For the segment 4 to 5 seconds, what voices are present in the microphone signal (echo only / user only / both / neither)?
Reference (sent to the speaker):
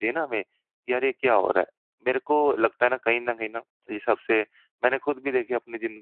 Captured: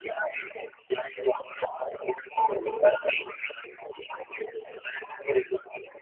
echo only